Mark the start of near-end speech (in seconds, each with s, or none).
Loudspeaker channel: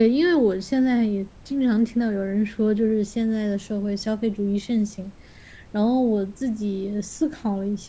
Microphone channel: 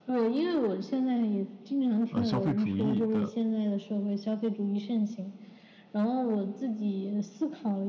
2.1 s